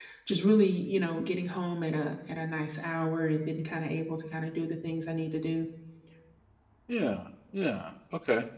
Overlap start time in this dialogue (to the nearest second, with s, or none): none